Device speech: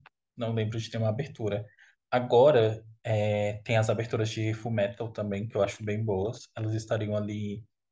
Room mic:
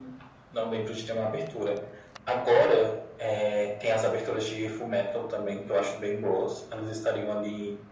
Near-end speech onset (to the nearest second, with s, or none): none